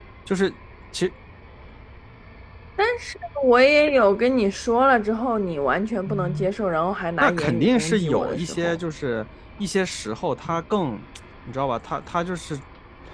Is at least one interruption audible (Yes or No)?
Yes